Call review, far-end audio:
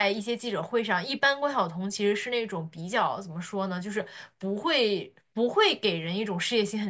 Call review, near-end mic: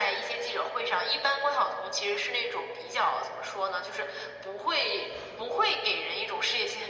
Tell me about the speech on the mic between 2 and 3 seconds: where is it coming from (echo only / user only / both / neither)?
echo only